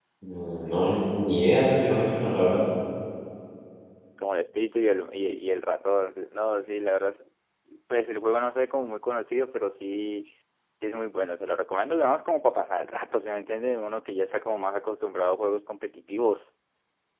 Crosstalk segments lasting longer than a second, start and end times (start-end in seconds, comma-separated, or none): none